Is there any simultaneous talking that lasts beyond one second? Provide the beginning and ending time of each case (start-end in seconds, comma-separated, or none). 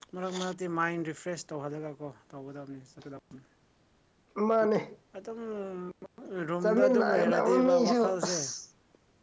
6.6-8.4